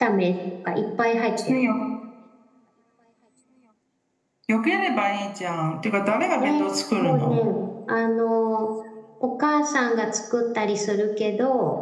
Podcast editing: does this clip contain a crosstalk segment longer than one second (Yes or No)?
No